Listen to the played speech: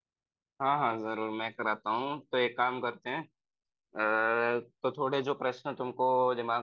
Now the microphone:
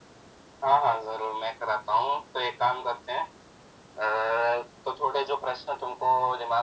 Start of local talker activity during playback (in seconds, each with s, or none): none